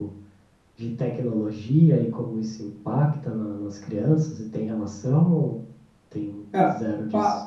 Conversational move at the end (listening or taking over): taking over